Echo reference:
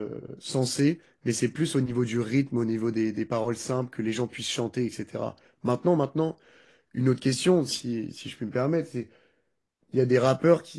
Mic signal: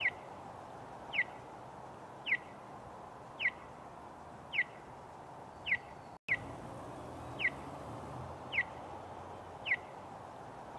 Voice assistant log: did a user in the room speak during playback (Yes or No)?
No